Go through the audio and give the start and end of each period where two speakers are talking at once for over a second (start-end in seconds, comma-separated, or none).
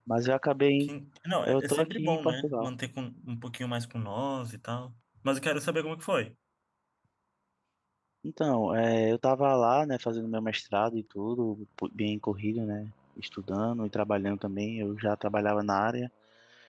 1.5-2.7